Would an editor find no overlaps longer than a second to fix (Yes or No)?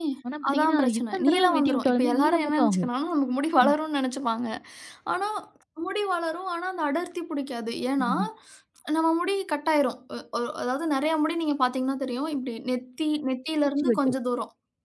No